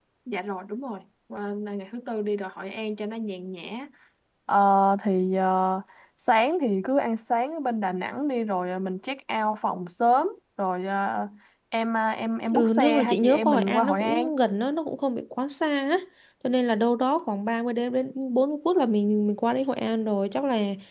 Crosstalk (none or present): present